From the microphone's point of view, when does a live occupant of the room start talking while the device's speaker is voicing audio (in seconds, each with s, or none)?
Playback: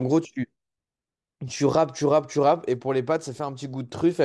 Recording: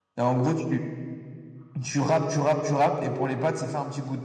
none